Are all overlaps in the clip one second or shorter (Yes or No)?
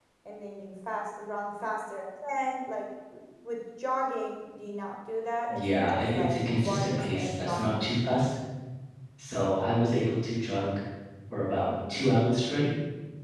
No